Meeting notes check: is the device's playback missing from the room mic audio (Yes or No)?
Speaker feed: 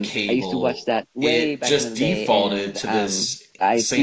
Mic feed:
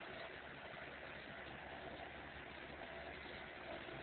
Yes